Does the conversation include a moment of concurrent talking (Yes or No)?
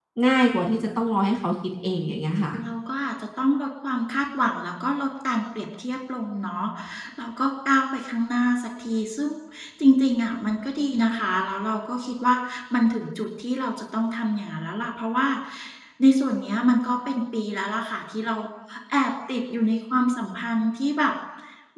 No